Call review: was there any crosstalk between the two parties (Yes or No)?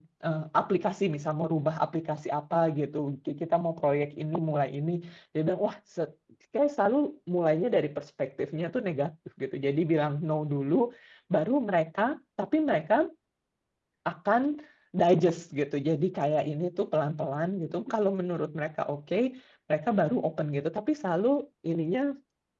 No